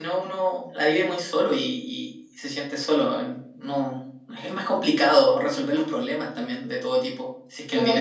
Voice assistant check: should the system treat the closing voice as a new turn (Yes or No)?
Yes